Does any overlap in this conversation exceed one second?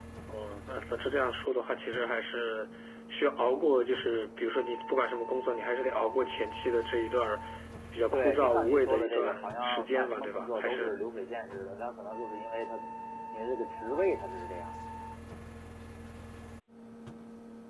Yes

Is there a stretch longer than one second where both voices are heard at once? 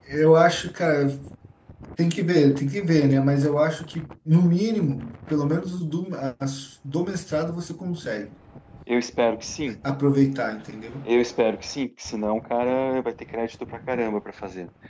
No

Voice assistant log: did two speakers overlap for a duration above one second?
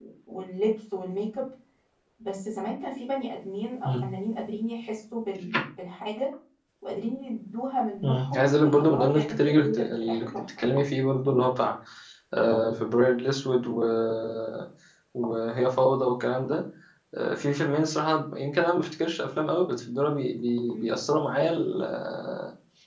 Yes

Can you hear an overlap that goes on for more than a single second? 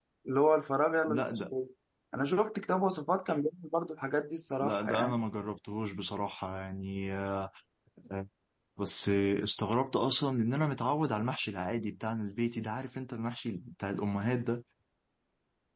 No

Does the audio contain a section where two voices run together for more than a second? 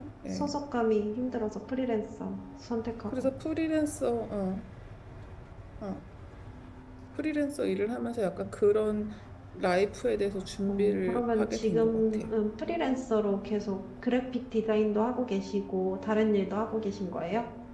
Yes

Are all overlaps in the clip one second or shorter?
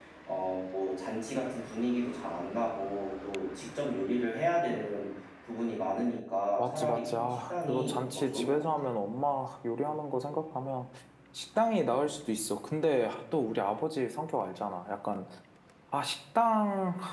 No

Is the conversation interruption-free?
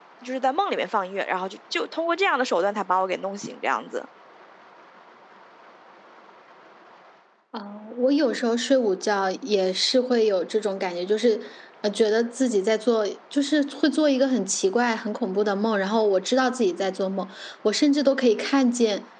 Yes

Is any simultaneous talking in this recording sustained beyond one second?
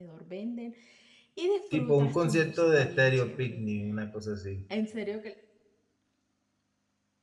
Yes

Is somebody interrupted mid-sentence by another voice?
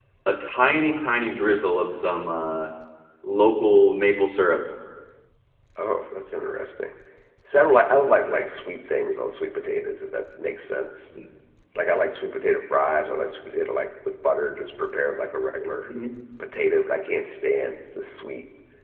No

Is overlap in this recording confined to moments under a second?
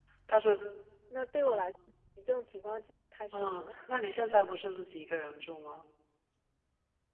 Yes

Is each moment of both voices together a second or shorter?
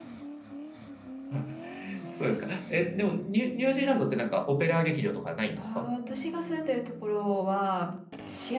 Yes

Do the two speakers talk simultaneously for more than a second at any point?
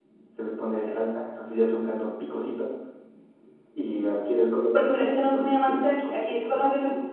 Yes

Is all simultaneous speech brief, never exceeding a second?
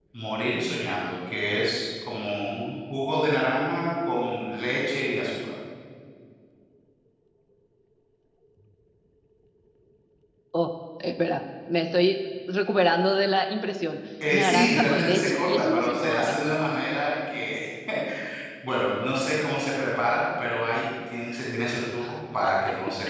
No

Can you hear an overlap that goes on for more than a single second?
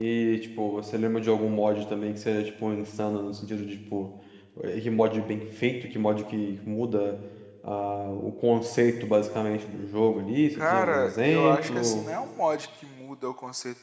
Yes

